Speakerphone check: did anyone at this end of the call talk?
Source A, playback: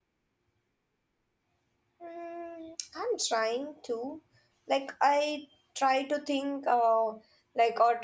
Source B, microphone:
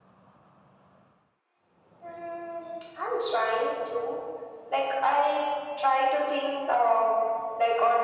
No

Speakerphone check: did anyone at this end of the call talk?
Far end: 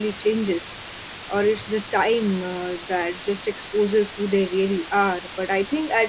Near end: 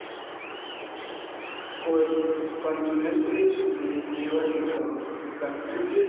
Yes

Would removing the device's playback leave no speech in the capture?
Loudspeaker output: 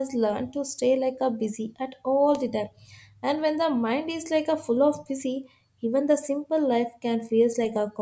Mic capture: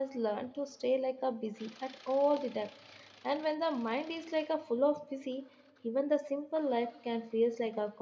Yes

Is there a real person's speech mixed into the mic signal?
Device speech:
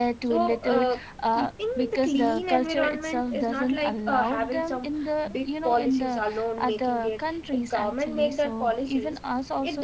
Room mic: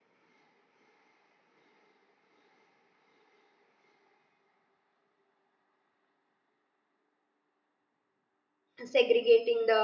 Yes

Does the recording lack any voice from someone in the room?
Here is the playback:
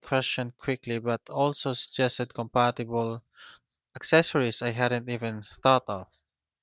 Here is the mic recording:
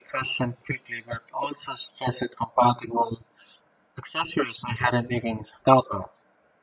Yes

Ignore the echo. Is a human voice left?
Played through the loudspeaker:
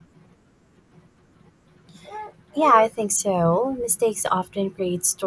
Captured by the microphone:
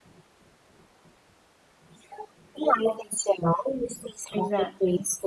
Yes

